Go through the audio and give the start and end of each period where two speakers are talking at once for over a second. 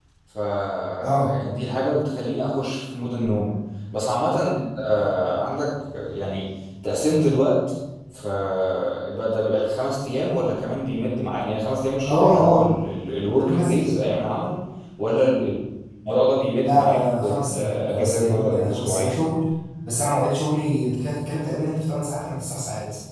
16.6-19.2

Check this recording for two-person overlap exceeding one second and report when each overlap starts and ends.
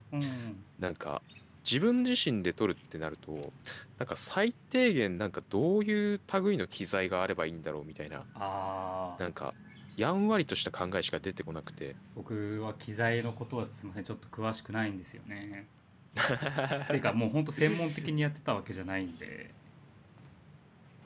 none

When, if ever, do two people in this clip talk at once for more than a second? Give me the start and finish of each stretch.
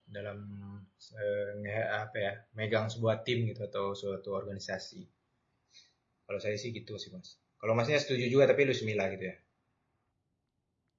none

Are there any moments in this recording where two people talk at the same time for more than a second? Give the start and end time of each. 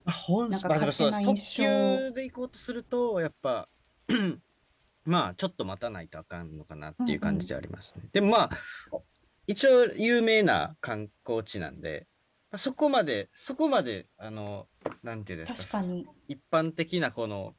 0.5-2.0

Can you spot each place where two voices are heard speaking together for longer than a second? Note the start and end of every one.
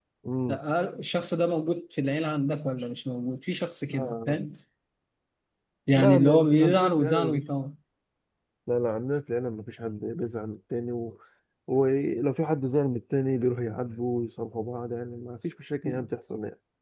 6.0-7.4

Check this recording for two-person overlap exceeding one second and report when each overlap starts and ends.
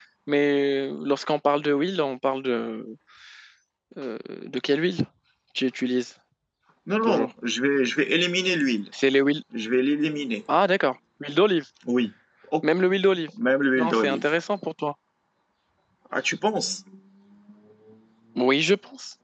none

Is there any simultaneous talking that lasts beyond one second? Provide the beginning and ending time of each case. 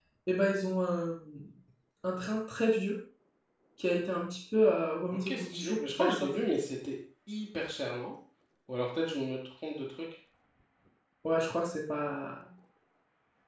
5.1-6.3

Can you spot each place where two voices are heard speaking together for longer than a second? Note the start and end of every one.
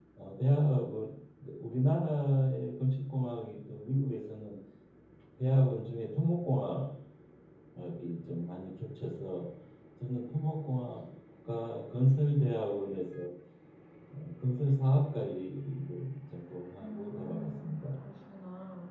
16.8-18.0

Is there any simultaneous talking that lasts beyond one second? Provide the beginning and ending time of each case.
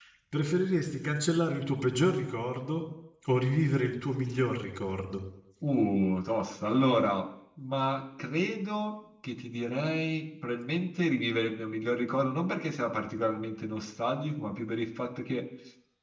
none

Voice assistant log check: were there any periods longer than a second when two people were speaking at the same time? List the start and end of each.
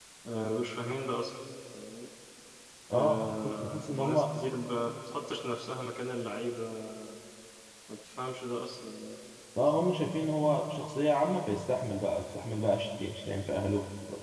2.9-4.2

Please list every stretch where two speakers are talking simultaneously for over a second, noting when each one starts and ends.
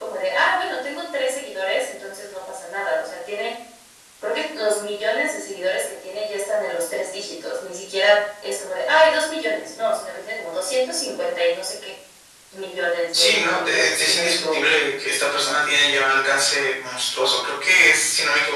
13.1-14.7

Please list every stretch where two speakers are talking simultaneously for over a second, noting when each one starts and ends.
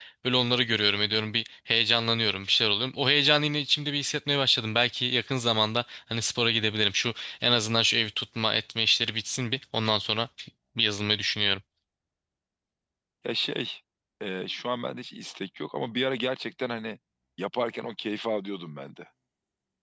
none

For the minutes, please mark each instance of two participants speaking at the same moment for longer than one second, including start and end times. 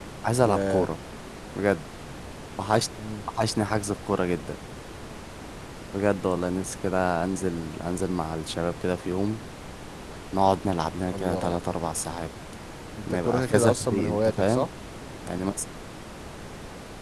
13.1-14.7

